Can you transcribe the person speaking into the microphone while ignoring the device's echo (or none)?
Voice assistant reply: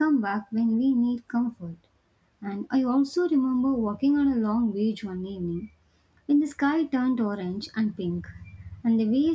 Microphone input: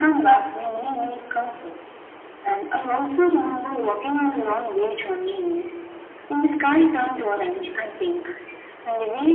none